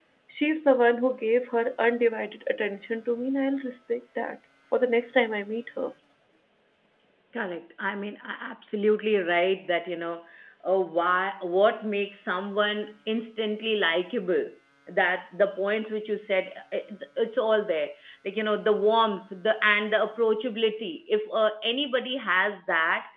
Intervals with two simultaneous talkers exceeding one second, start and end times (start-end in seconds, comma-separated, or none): none